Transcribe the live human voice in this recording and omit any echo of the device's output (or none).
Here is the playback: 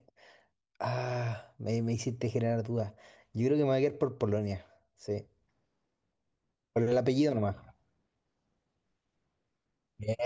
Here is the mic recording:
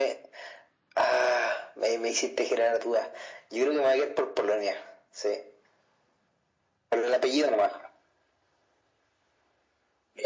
none